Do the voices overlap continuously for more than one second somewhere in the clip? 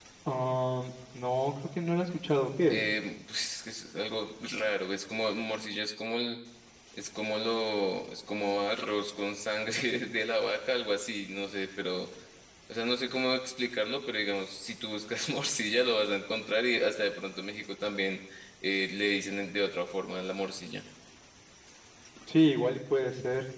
No

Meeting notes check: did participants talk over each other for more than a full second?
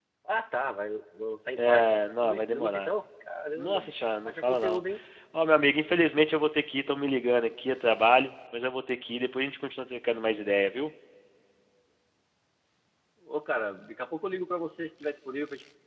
Yes, from 1.6 s

